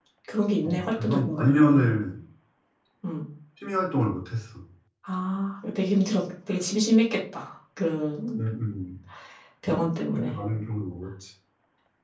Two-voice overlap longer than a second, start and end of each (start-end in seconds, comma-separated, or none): 0.6-1.8